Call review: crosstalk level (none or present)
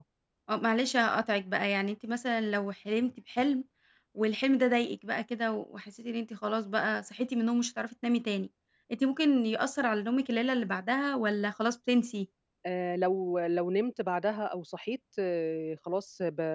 none